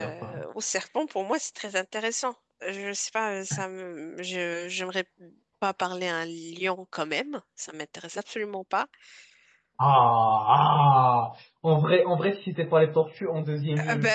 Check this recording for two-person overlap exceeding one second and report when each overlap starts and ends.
none

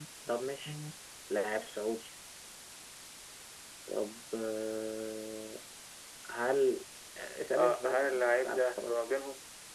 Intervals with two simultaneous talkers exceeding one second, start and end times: 7.6-8.9

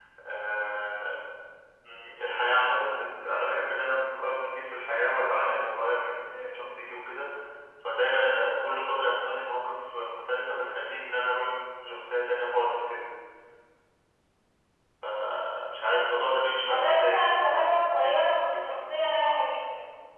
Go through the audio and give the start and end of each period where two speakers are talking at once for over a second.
16.7-18.7

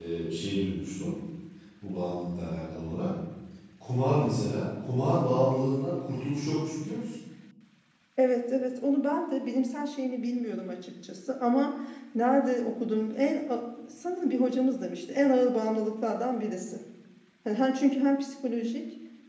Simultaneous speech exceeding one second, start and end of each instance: none

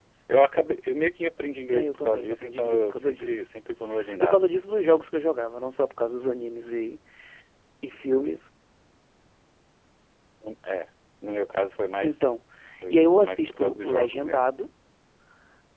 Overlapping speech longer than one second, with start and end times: 1.7-3.4, 12.9-14.5

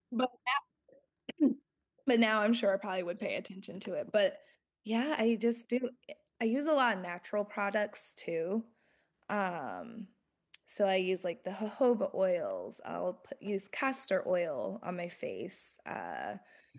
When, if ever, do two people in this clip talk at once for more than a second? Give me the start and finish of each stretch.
none

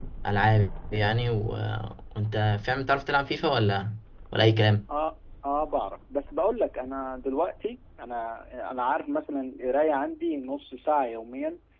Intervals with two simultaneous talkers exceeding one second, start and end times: none

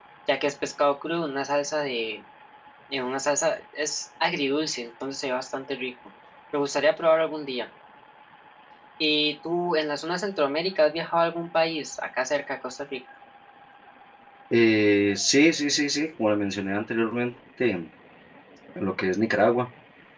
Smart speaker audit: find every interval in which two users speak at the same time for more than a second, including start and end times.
none

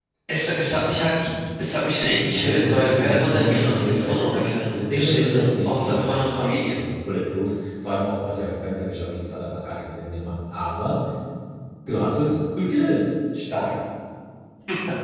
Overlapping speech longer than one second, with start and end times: 2.2-4.1, 4.7-6.2

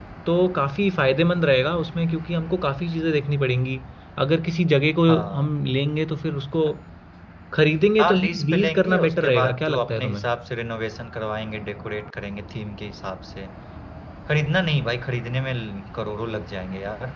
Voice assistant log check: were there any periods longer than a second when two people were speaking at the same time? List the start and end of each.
8.0-10.3

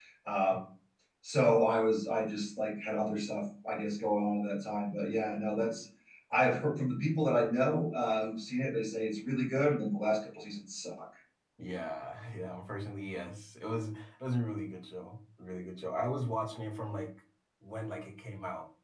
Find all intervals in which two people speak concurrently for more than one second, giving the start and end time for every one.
none

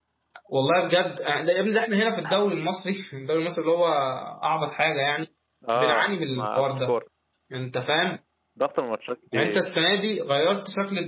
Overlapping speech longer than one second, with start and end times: 5.8-7.0

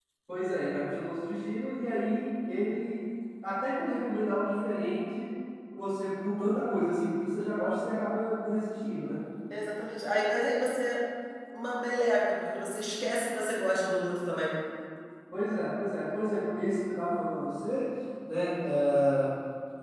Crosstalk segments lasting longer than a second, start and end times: none

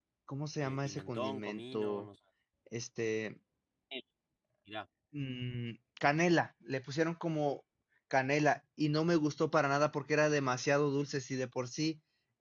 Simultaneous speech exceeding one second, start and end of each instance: 0.6-2.1

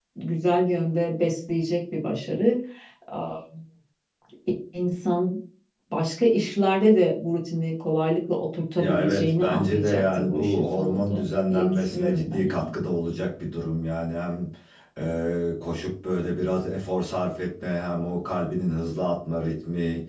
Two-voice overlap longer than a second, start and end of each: 8.8-12.6

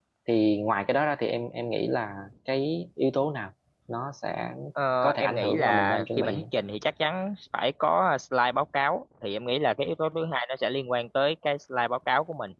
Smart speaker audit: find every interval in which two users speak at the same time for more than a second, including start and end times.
5.0-6.4

